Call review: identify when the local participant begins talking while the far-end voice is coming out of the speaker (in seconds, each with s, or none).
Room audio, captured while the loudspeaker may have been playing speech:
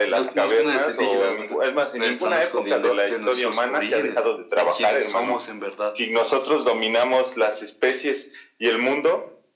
none